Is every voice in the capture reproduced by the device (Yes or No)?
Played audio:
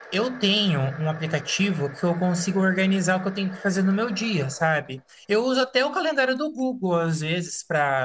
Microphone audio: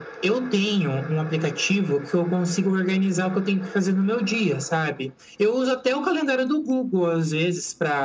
Yes